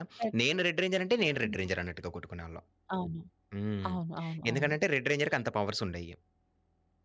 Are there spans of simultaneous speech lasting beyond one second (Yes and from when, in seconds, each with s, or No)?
No